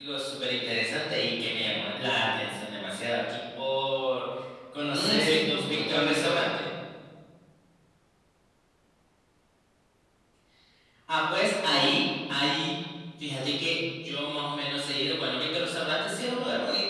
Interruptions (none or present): present